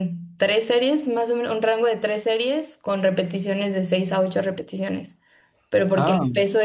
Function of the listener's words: listening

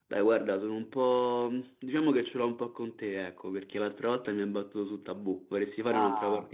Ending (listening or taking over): taking over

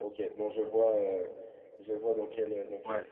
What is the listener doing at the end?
taking over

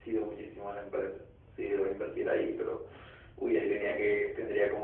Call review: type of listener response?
listening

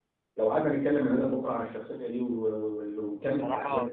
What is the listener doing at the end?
taking over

